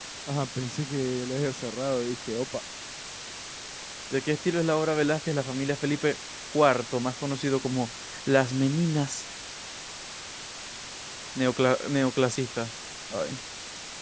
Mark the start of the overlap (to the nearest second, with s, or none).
none